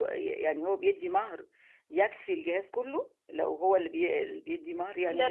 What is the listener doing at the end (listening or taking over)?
taking over